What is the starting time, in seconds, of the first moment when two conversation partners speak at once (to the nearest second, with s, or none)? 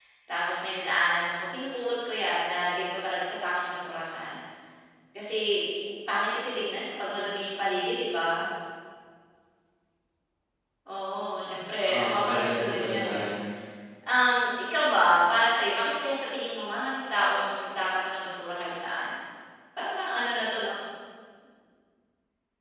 12 s